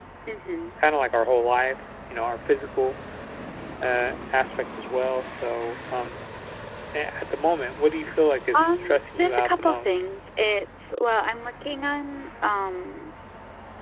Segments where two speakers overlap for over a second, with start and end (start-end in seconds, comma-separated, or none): 8.5-10.0